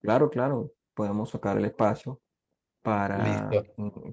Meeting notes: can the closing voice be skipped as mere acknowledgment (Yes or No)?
Yes